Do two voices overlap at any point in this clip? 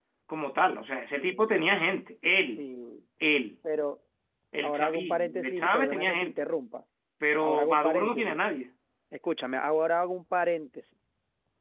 Yes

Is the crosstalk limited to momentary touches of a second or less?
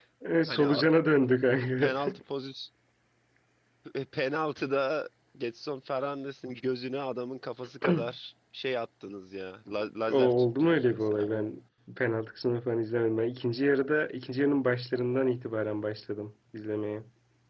No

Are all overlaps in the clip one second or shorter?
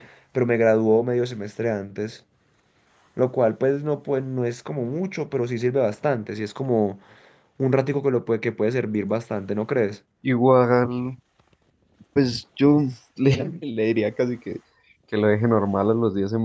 Yes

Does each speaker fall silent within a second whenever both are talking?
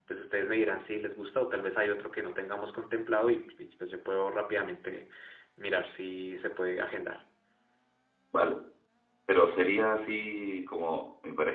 Yes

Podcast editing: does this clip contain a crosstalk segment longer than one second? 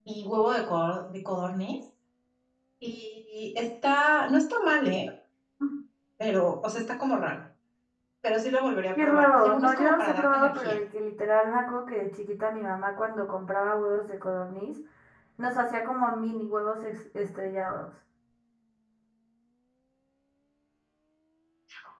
Yes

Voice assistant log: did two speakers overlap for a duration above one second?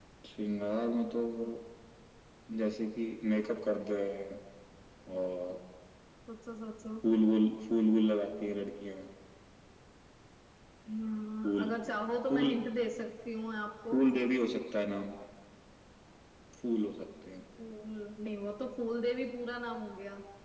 No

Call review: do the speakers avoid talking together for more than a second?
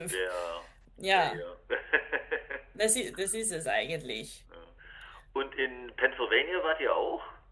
Yes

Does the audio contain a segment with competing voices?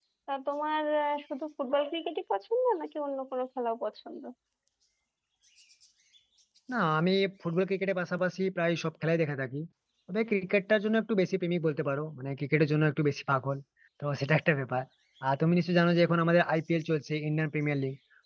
No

